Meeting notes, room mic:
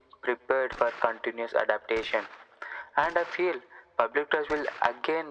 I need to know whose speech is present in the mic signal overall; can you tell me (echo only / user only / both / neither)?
echo only